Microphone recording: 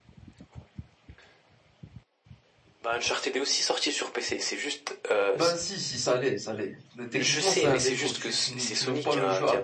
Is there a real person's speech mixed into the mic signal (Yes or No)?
Yes